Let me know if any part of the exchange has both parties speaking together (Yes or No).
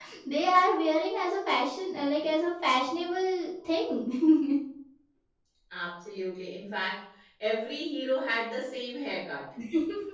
No